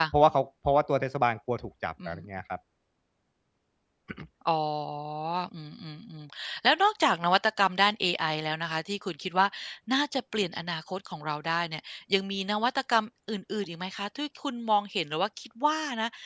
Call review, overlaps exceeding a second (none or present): none